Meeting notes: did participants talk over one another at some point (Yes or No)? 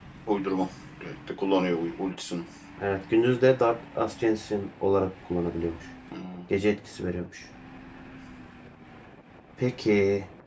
No